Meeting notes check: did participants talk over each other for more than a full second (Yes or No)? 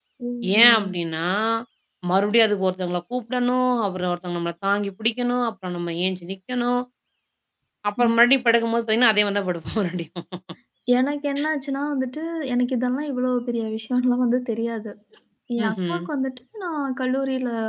No